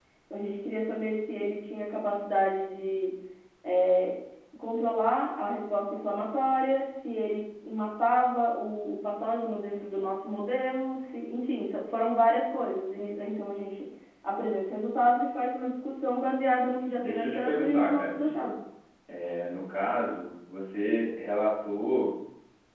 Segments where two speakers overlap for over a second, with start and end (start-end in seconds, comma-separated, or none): 17.0-18.4